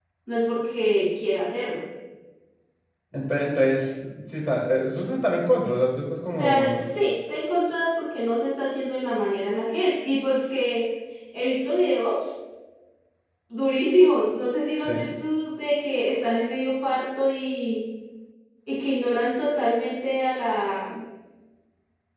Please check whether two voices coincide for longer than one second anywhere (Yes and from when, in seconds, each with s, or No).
No